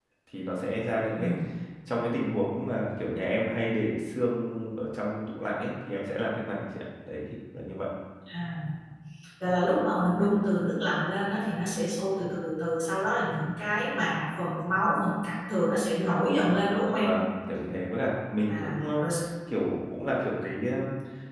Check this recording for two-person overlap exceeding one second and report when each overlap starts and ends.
none

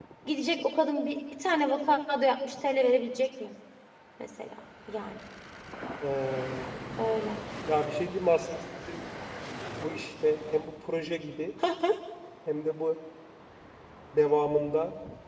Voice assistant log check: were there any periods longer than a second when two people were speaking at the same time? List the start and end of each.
none

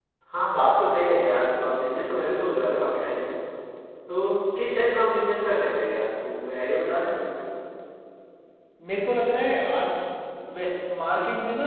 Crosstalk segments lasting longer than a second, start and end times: none

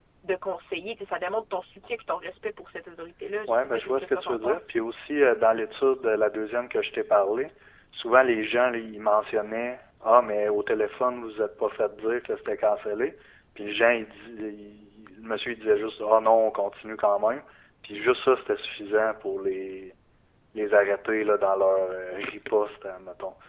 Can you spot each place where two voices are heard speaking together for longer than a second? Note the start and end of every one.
3.5-4.7

